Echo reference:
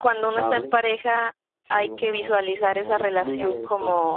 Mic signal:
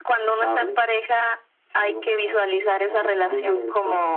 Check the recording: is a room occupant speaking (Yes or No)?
No